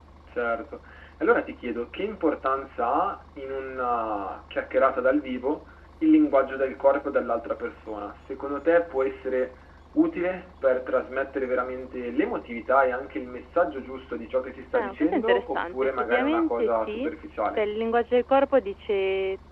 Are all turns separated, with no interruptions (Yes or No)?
No